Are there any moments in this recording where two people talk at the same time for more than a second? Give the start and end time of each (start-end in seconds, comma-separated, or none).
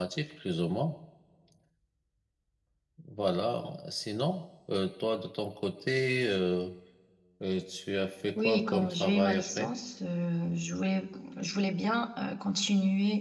8.4-9.7